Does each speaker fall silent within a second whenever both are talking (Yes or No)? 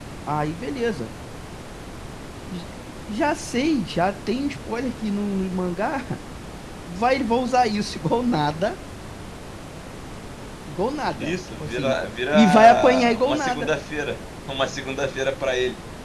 No